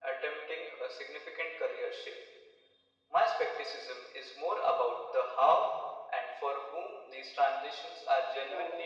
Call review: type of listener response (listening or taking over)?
taking over